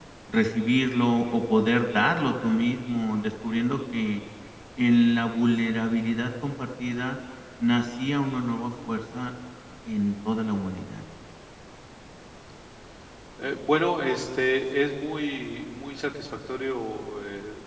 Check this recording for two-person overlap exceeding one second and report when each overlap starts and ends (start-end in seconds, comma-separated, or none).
none